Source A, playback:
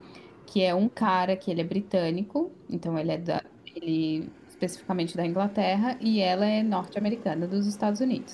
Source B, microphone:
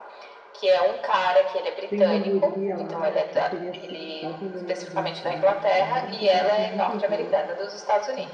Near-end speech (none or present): present